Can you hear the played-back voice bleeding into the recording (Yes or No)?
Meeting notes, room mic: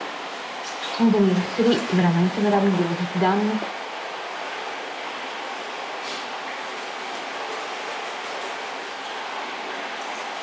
No